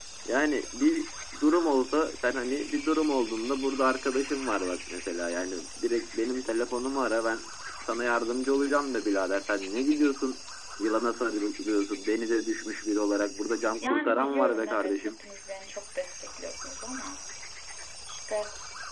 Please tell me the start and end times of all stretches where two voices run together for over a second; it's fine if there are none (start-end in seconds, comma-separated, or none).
13.8-15.2